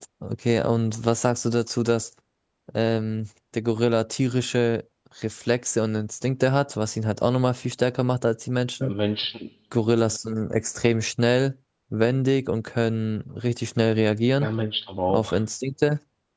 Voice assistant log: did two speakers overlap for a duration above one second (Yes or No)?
No